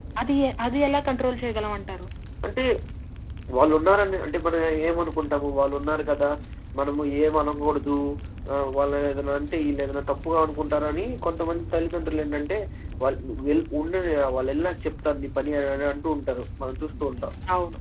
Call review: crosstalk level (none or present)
none